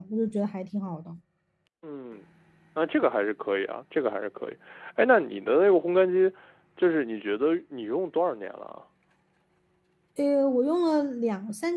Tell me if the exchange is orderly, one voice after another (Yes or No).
Yes